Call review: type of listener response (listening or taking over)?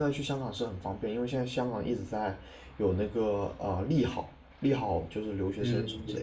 taking over